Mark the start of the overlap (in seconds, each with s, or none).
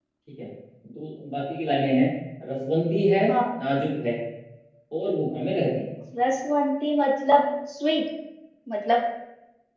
none